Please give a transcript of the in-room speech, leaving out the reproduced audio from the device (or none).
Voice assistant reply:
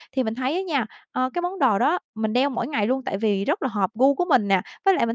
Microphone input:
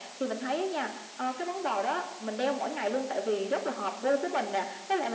none